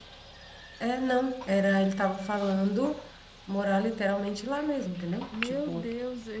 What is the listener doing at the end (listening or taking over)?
taking over